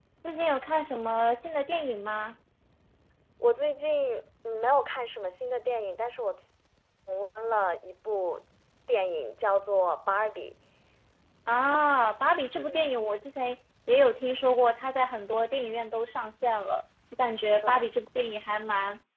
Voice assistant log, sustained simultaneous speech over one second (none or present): none